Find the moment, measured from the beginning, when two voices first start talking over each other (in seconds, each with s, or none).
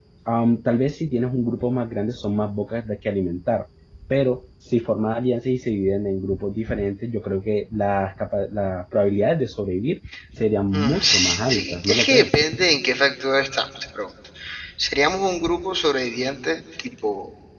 10.7 s